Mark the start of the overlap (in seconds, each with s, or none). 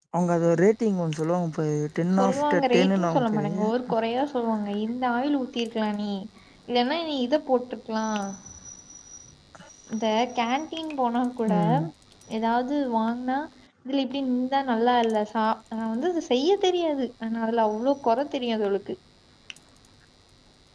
2.2 s